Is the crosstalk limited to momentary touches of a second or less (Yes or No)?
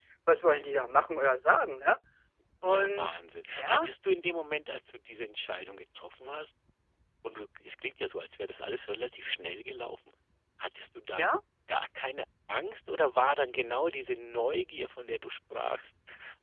Yes